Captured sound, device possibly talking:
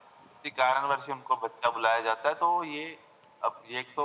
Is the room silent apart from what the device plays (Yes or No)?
Yes